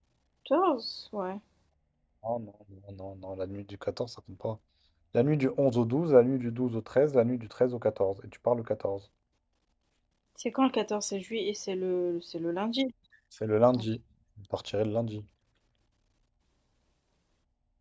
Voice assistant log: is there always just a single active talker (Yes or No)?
Yes